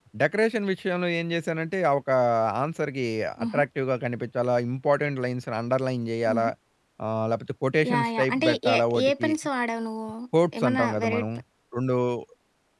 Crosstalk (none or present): present